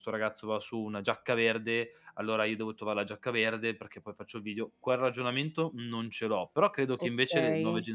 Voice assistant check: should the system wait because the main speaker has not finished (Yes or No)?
Yes